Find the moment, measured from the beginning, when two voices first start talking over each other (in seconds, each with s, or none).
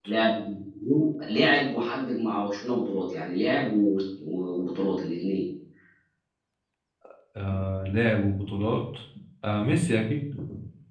none